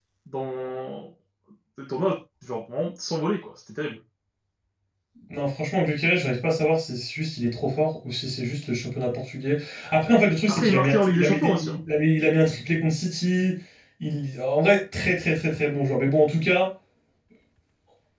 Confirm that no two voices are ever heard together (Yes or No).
No